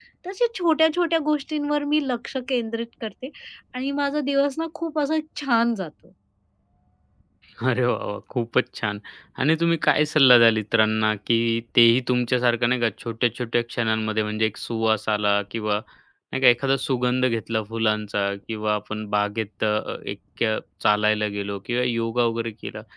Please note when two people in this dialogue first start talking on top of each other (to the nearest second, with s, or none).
none